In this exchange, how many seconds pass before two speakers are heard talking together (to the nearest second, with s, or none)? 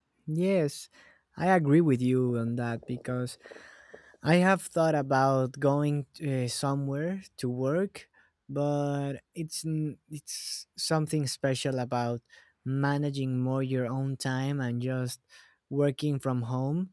none